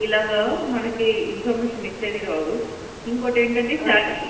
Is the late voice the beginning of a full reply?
No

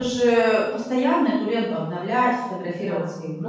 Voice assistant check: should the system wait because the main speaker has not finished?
Yes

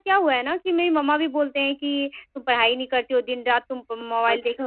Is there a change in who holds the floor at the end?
No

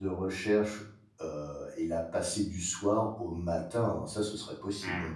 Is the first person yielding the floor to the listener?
Yes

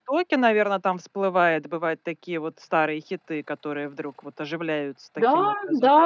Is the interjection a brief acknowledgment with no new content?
No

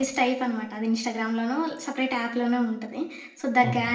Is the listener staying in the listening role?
Yes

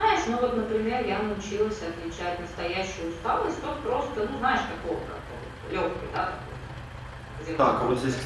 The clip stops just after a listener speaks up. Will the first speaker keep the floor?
No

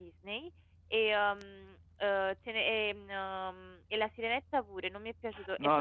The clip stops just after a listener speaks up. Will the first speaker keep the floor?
No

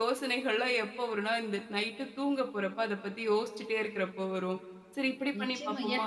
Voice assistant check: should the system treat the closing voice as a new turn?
Yes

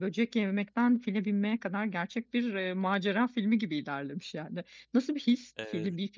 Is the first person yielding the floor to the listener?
No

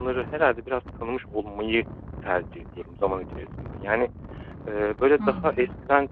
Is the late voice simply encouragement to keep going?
Yes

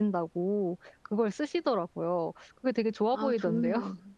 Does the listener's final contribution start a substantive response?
Yes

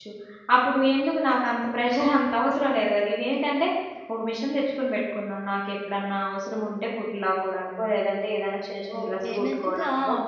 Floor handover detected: Yes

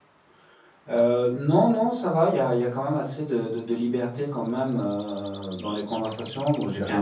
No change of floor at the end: Yes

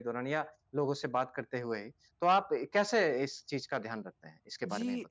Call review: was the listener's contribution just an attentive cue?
No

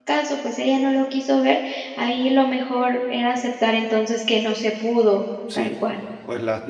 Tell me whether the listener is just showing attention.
No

